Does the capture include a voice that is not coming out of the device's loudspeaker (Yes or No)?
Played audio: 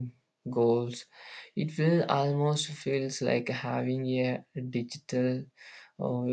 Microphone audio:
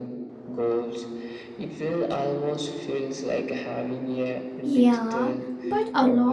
Yes